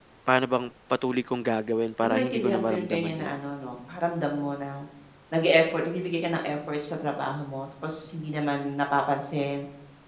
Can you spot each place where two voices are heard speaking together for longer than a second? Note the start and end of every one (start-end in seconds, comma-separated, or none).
2.0-3.4